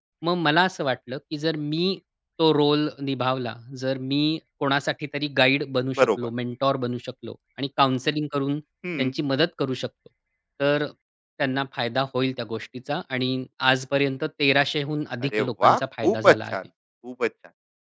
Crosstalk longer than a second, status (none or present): present